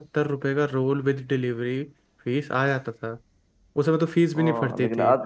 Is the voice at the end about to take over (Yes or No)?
Yes